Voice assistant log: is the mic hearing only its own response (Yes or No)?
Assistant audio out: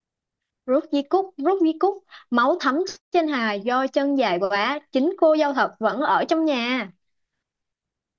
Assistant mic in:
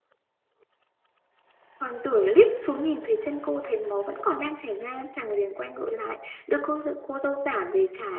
No